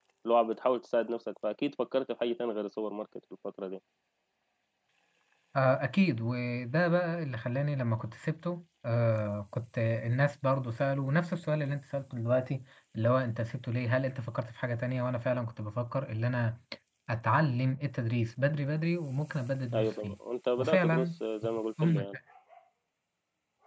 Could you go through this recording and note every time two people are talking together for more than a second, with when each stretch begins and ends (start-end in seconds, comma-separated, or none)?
none